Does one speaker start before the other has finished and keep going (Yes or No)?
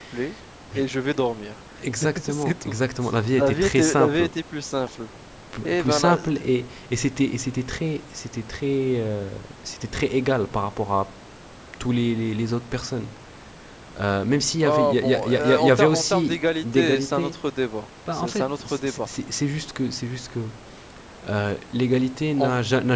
Yes